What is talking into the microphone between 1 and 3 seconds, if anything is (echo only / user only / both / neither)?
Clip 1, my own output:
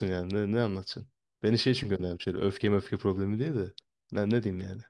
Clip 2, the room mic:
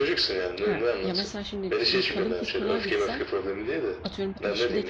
both